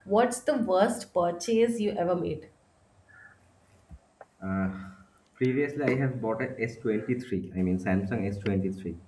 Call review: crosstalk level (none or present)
none